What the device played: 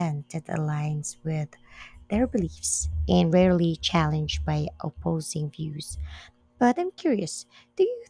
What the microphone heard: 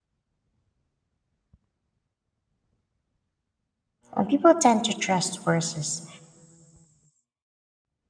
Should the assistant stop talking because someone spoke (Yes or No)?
Yes